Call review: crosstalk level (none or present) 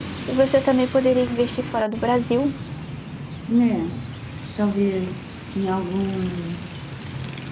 none